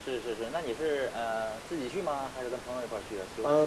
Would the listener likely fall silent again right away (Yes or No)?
No